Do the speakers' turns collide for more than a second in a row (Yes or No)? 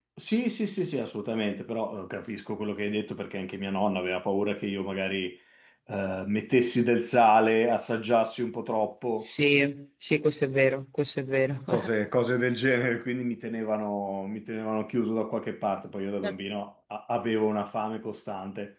No